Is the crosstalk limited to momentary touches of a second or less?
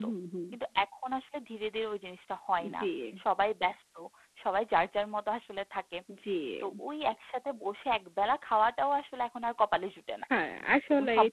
Yes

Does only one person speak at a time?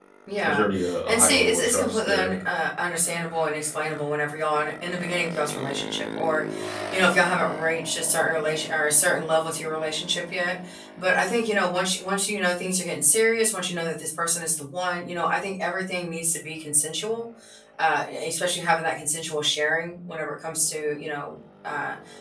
No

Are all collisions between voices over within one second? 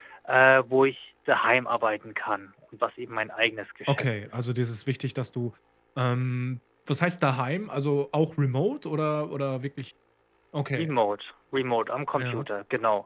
Yes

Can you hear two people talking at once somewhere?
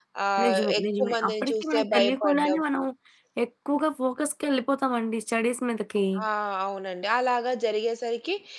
Yes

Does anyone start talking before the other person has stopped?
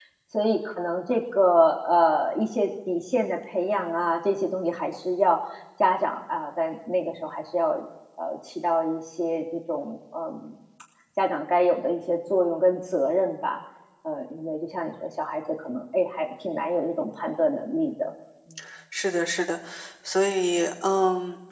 No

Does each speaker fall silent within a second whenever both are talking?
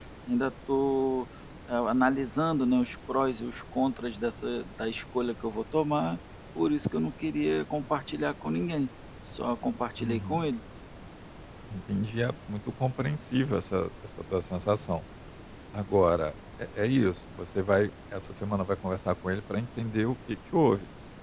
Yes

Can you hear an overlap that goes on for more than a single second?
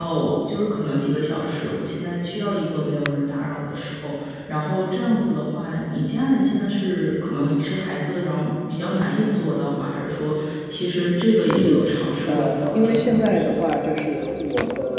Yes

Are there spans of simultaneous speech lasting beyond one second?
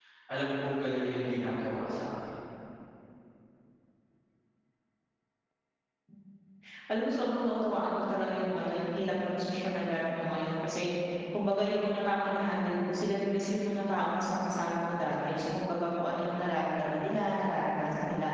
No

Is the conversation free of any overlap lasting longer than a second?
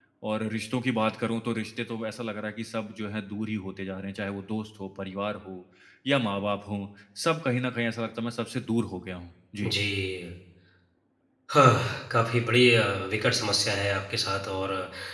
Yes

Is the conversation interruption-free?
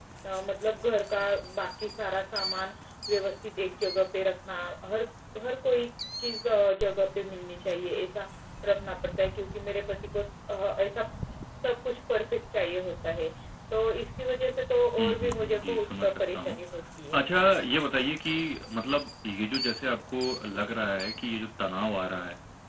No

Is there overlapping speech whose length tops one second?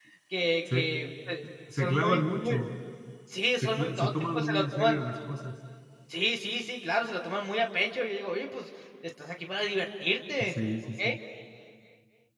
Yes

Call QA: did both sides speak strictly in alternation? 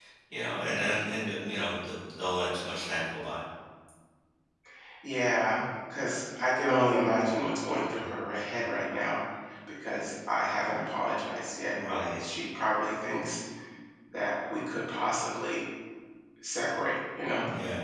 Yes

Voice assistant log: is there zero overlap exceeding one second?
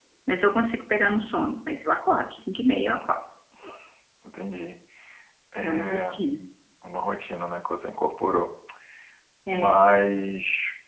Yes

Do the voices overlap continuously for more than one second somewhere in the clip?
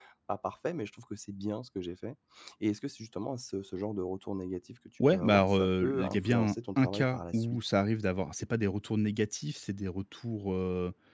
Yes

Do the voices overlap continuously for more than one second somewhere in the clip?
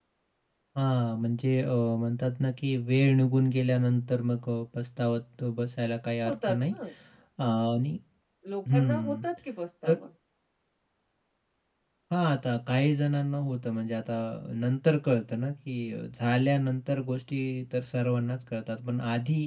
No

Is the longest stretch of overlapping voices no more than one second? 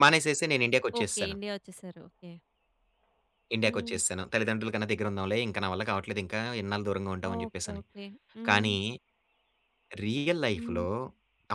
Yes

